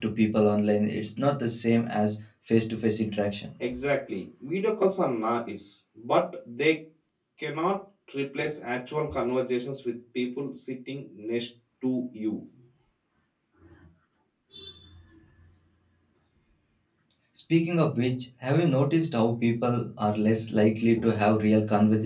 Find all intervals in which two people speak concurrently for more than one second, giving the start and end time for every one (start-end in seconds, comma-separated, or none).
none